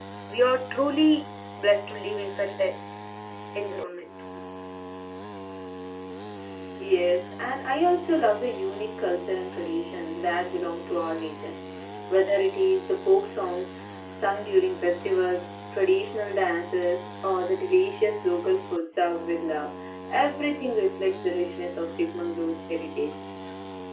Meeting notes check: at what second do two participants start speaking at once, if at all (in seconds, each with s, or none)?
none